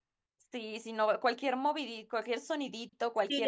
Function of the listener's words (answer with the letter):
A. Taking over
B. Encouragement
A